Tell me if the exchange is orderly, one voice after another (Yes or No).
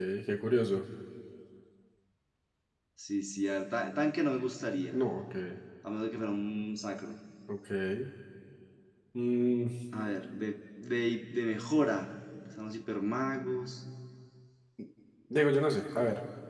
Yes